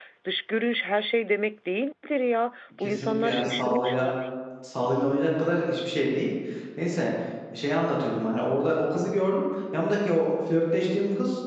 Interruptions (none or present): present